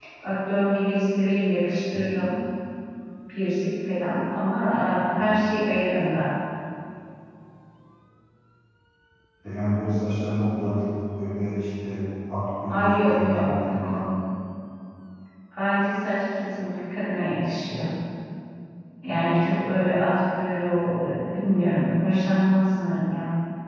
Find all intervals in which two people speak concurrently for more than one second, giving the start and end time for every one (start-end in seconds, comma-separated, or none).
12.7-14.0